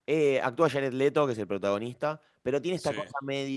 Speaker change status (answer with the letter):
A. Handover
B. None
B